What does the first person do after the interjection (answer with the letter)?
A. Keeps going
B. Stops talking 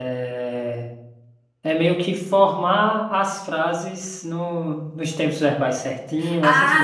B